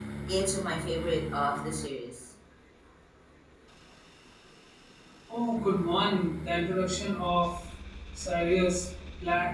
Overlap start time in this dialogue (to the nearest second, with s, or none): none